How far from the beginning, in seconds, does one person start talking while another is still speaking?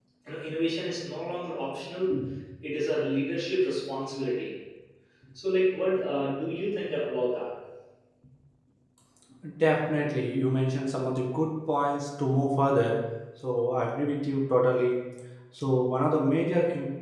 none

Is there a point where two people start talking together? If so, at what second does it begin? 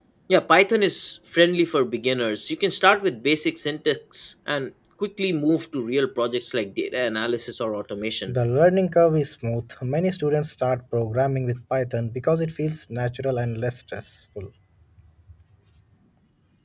none

